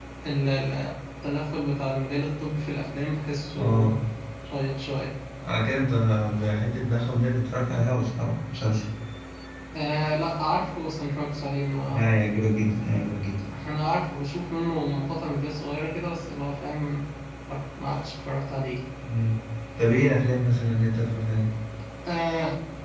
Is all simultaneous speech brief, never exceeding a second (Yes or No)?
Yes